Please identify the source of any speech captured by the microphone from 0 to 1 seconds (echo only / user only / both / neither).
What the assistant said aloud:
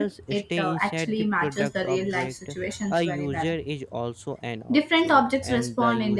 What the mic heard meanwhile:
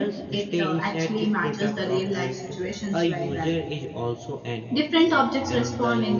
echo only